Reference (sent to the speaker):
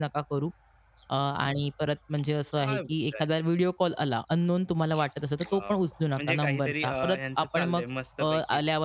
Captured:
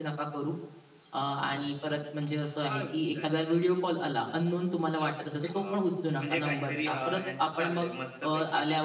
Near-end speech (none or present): none